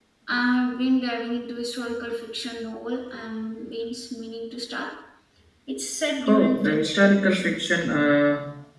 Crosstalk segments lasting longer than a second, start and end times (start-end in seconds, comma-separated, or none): 6.2-7.5